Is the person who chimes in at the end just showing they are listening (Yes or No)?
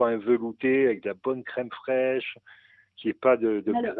Yes